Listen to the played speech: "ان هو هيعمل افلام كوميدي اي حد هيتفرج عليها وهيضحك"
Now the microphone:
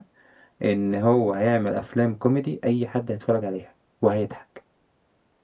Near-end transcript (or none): none